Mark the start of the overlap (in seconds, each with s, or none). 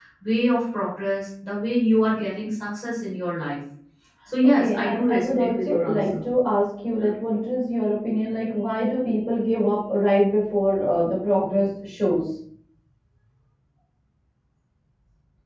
4.4 s